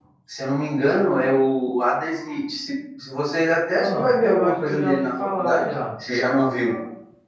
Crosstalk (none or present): present